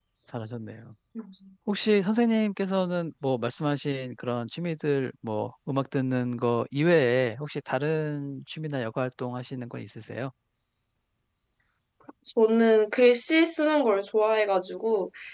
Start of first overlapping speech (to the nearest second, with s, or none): none